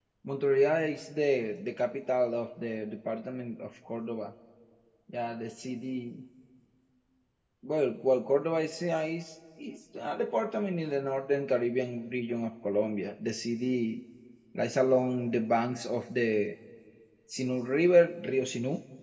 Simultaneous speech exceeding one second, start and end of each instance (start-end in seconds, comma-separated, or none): none